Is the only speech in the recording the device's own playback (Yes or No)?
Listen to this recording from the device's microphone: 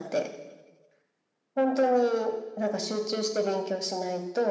Yes